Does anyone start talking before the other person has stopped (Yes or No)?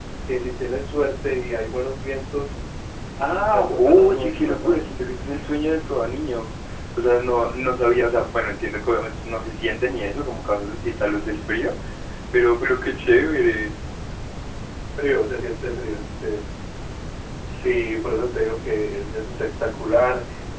Yes